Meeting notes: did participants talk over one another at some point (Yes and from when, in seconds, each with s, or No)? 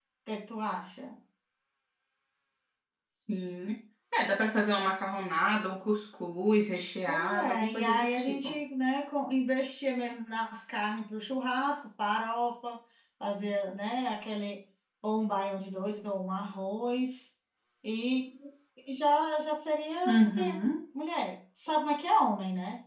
Yes, from 7.1 s